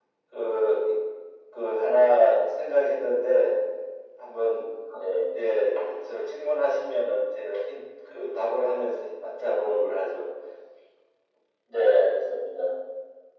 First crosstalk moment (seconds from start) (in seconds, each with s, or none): none